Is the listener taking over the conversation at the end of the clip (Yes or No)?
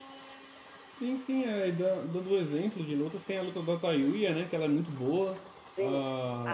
Yes